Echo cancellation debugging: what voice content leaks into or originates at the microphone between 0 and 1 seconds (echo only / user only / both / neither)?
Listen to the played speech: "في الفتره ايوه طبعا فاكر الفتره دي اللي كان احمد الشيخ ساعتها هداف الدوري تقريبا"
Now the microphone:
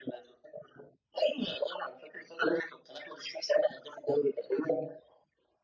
echo only